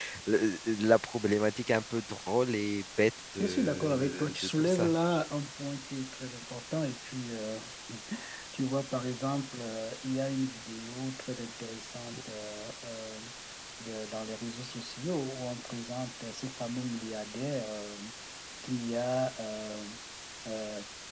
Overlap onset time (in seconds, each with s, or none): 3.4 s